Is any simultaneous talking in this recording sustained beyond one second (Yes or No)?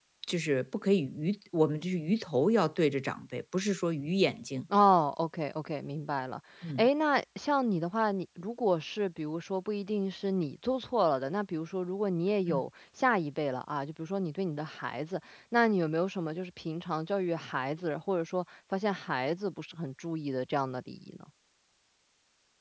No